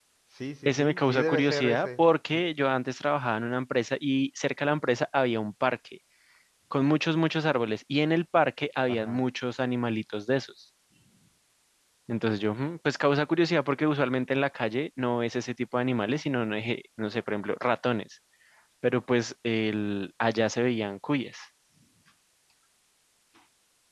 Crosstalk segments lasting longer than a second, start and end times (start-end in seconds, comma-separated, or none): 0.7-1.9